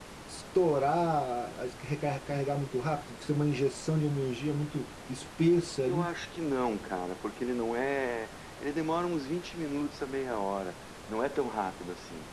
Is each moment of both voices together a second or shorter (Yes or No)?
Yes